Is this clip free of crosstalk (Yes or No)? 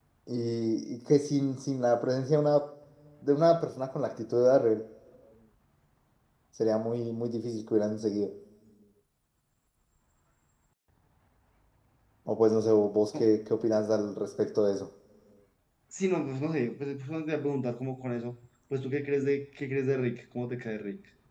Yes